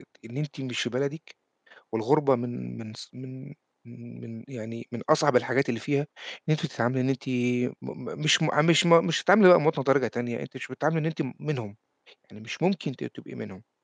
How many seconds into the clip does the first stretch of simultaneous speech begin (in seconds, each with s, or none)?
none